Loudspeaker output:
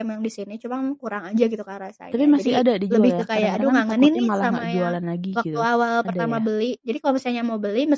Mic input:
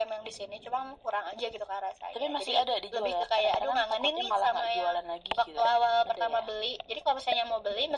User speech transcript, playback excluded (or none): none